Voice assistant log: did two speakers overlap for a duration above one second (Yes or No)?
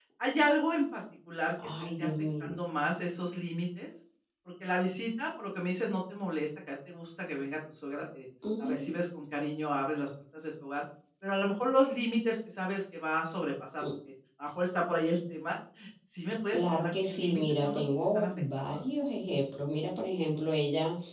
Yes